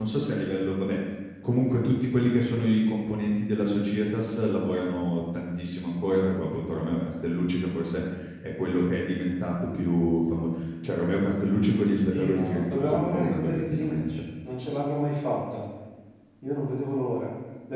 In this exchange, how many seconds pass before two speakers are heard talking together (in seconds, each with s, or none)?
12.1 s